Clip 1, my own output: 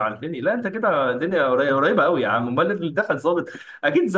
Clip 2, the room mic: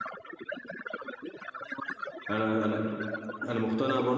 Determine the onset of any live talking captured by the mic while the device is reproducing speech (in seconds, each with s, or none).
2.3 s